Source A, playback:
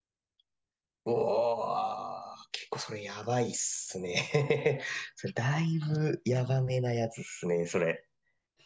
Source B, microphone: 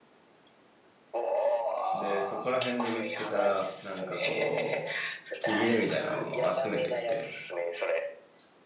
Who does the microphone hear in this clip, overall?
both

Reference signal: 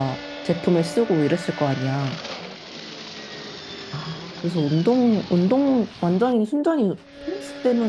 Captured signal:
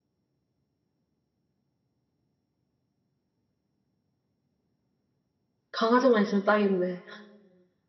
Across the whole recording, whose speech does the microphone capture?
user only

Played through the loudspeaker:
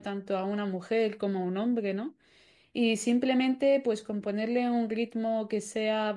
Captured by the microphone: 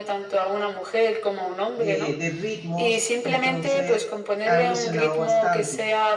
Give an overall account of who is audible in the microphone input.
both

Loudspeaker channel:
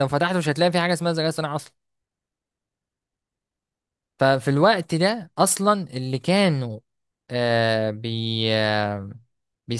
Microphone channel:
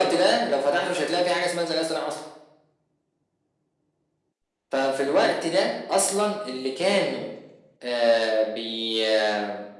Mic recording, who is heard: echo only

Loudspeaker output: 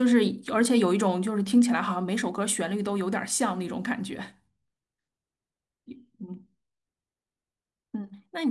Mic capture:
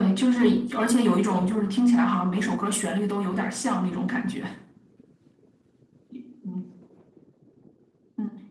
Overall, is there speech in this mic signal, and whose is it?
echo only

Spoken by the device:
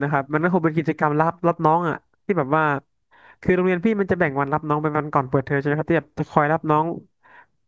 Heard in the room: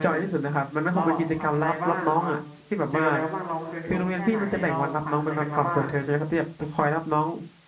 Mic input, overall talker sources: both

